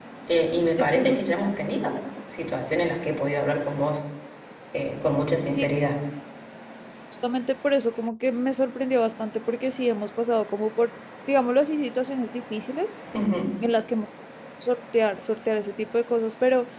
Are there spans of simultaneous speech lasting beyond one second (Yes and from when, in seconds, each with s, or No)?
No